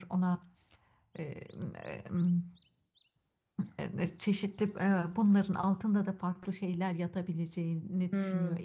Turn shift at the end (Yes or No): Yes